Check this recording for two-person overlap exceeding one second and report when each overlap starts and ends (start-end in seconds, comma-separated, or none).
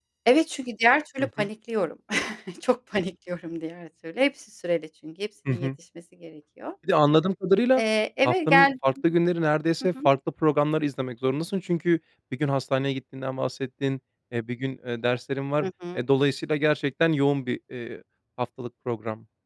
none